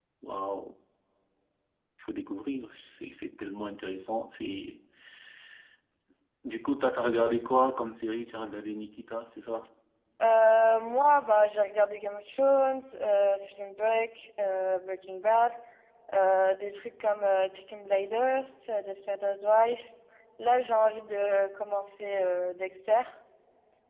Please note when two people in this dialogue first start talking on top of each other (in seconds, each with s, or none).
none